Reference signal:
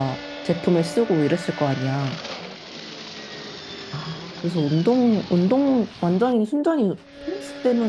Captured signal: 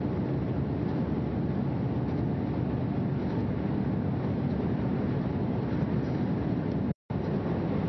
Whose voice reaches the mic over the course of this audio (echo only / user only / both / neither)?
neither